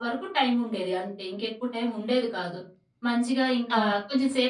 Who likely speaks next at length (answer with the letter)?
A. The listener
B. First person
B